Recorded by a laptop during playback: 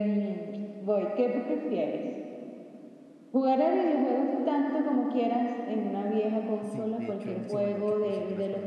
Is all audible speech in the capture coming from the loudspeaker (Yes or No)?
No